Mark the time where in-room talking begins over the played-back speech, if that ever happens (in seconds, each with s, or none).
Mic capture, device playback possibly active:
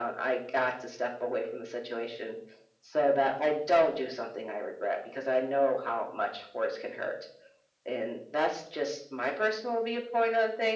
none